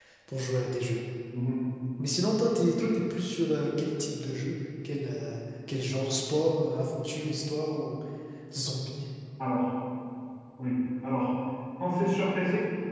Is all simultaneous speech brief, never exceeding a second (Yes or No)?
Yes